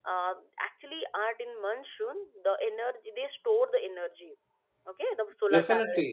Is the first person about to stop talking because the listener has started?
Yes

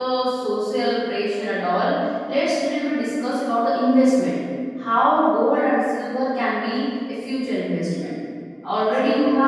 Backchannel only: Yes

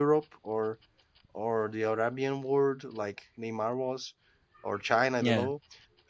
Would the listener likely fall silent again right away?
Yes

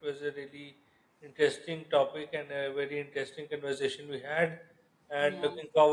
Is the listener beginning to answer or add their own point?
No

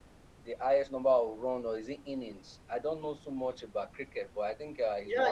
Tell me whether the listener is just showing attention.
No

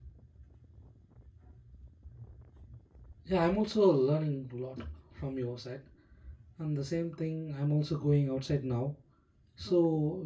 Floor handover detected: No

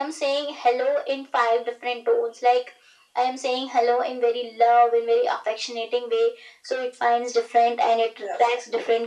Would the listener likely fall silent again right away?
Yes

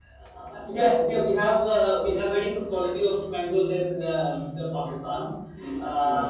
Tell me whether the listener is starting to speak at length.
No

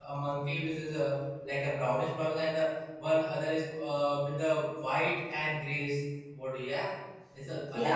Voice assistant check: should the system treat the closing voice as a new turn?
Yes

